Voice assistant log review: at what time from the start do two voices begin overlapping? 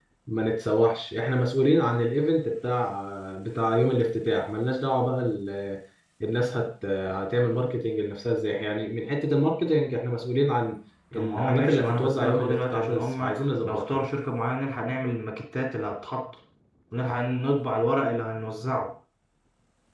11.1 s

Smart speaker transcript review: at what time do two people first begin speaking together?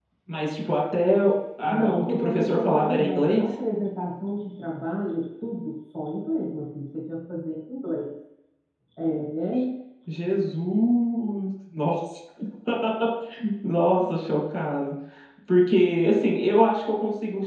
1.7 s

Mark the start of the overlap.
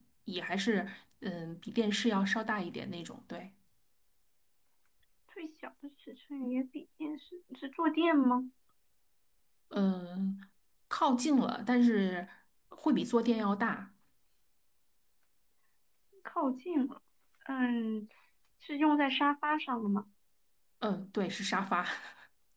none

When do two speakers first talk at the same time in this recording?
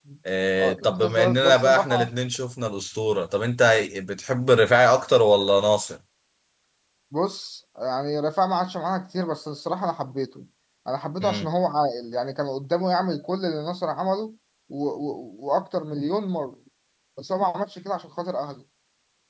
0.6 s

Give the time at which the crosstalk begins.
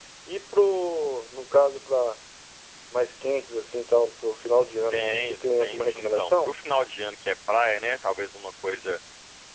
4.9 s

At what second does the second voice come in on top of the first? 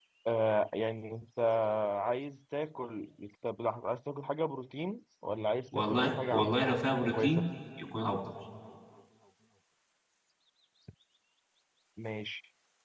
5.7 s

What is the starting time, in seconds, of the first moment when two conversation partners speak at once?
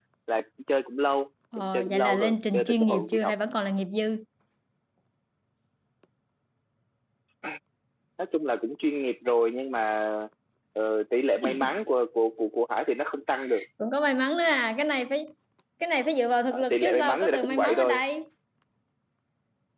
1.6 s

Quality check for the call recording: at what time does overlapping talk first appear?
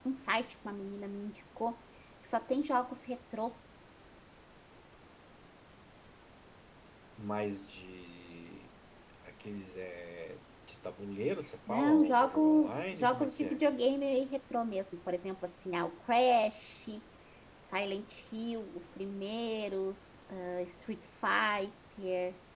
11.7 s

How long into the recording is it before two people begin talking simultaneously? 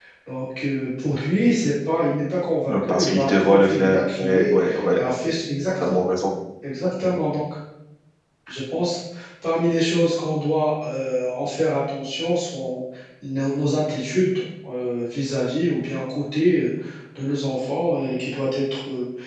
2.7 s

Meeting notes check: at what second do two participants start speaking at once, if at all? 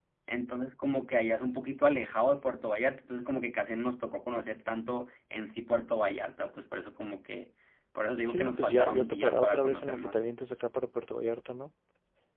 8.3 s

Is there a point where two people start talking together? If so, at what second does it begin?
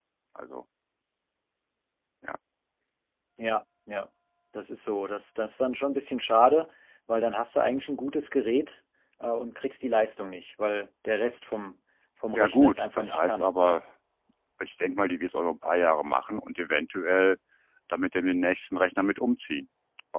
12.3 s

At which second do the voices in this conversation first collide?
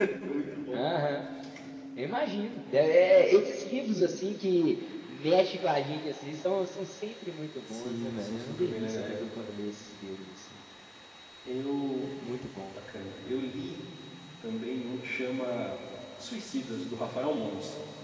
7.7 s

